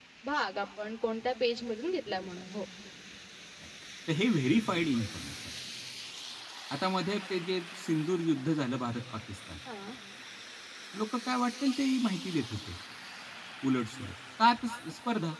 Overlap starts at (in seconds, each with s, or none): none